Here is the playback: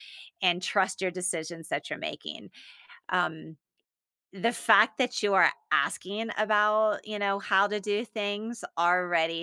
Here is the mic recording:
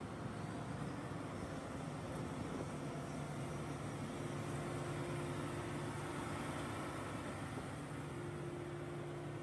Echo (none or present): none